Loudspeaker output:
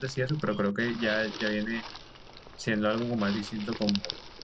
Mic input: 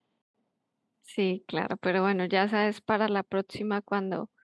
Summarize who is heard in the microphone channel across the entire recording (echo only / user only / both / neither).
user only